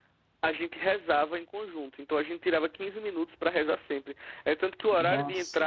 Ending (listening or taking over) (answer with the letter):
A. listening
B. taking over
A